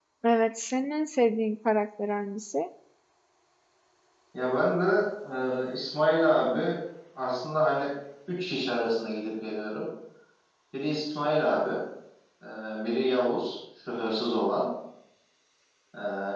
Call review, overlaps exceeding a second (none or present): none